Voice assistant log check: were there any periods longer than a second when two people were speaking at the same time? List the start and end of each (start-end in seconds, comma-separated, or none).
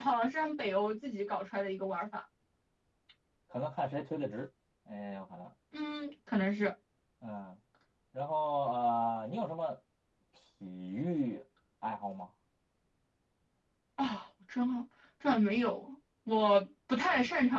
none